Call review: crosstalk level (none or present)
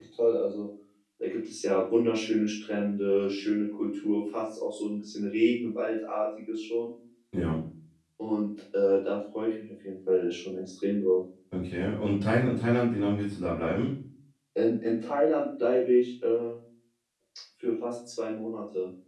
none